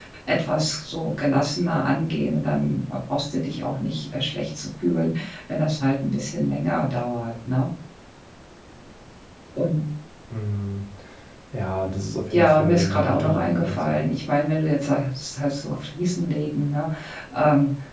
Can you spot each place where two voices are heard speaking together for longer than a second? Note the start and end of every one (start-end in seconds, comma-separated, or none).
12.3-14.1